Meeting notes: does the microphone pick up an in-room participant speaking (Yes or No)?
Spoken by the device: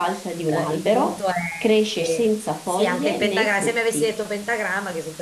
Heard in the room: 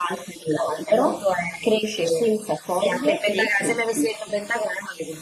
No